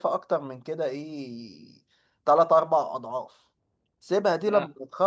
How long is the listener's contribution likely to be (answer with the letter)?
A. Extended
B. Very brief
B